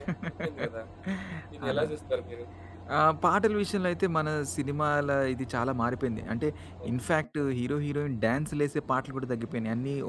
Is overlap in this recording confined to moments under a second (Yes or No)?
Yes